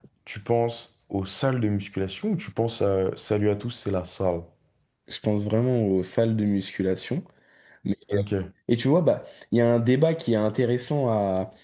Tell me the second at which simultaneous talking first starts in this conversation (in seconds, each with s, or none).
none